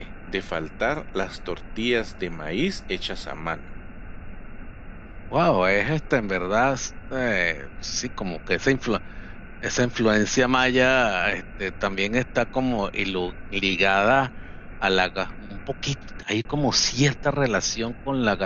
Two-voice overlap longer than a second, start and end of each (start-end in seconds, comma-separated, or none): none